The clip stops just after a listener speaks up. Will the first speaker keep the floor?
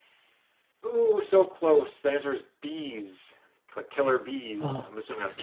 No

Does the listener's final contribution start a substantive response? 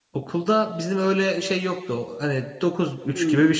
No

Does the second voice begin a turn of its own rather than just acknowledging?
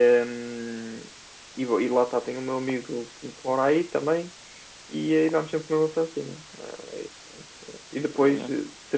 No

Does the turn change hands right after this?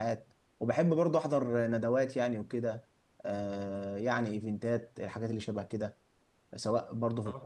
Yes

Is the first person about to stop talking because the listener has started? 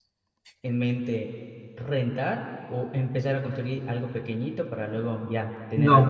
Yes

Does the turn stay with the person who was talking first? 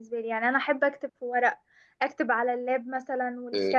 No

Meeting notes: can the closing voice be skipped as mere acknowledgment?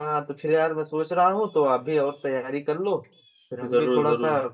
Yes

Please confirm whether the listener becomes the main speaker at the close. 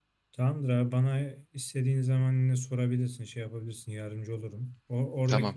No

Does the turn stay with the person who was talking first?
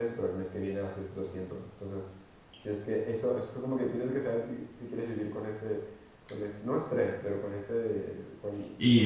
No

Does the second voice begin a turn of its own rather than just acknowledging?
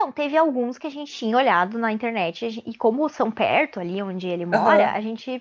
No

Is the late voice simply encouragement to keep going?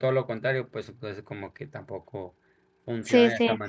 No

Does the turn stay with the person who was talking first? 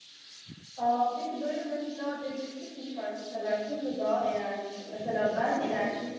Yes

